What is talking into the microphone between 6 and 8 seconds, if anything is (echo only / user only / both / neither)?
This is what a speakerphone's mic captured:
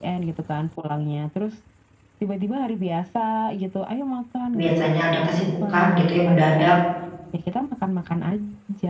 both